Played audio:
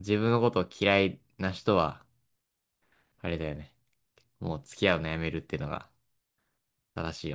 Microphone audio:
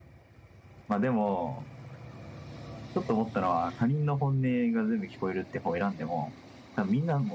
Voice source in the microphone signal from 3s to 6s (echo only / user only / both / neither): user only